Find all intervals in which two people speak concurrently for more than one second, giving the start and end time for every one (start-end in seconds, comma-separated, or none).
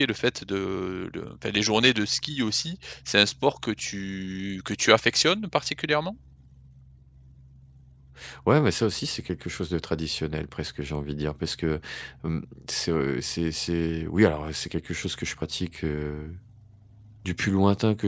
none